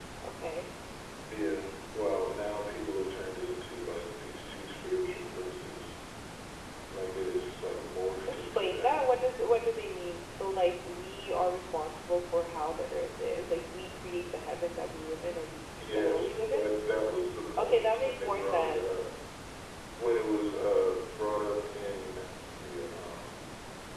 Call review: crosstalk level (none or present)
present